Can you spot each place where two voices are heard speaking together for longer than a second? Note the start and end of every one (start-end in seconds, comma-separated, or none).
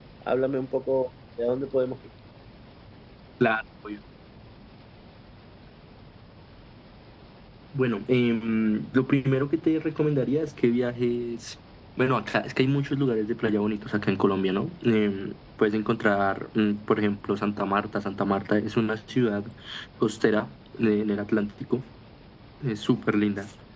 none